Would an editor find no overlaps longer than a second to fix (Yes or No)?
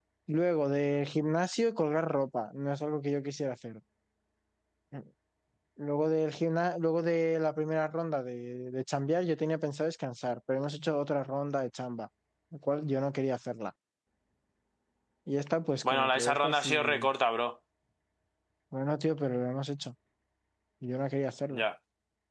No